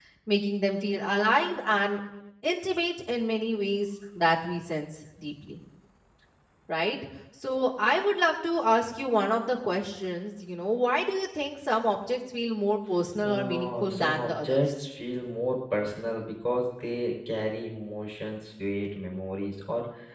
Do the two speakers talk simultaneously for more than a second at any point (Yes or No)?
Yes